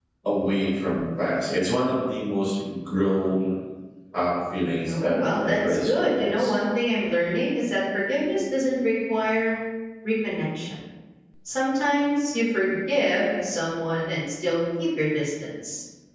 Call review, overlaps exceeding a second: present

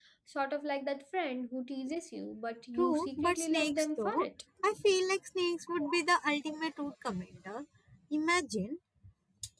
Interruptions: present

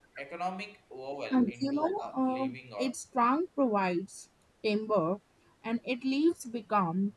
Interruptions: present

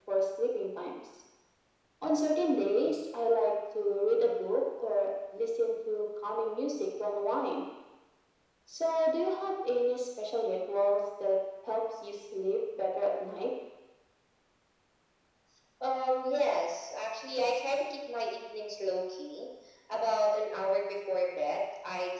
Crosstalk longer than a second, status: none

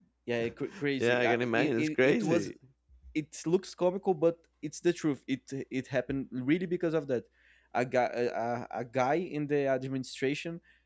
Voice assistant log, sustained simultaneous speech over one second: present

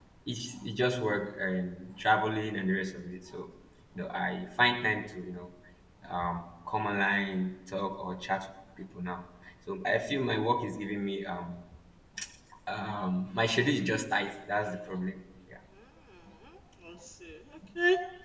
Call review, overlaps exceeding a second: none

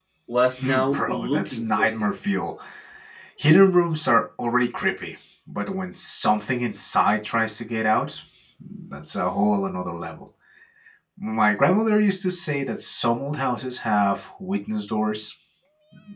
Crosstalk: present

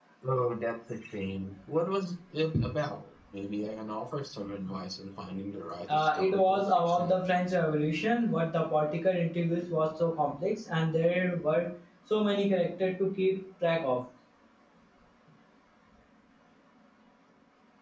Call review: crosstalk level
present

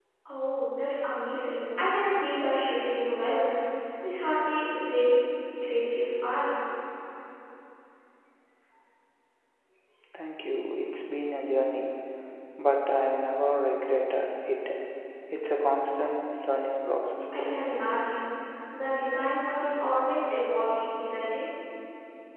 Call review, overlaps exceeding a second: none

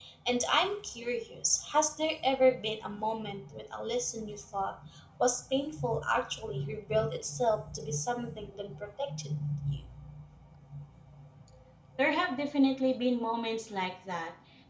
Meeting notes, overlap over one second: none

